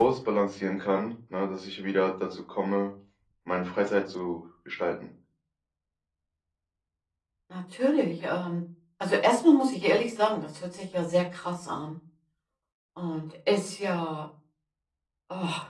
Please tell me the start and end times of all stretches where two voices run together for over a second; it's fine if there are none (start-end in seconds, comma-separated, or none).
none